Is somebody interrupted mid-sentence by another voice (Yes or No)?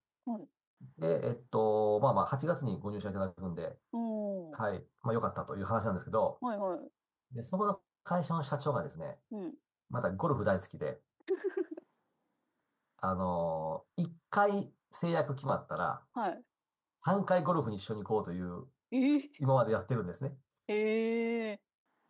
No